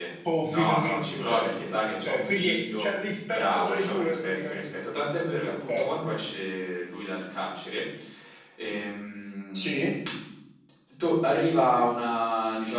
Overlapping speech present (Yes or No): Yes